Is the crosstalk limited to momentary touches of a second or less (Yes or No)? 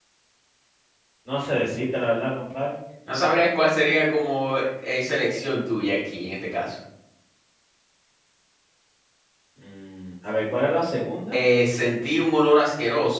Yes